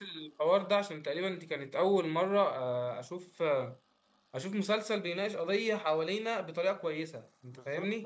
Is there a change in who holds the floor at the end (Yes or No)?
Yes